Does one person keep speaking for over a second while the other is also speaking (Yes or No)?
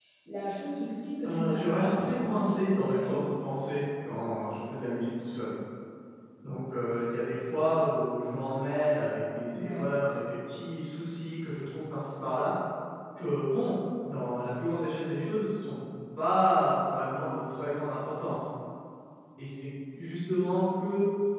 Yes